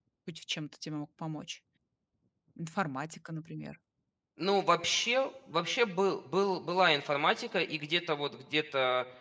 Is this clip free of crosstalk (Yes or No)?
Yes